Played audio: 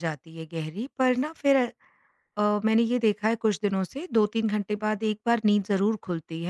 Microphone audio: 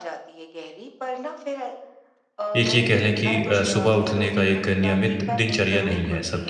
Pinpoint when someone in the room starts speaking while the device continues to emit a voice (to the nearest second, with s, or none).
3 s